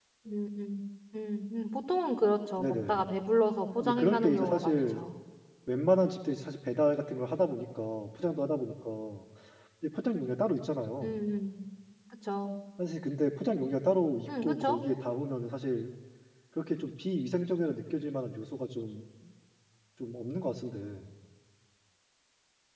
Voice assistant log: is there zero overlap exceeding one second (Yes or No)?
No